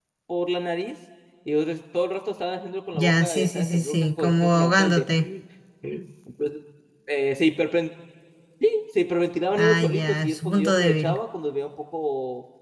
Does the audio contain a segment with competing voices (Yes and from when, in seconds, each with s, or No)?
Yes, from 2.9 s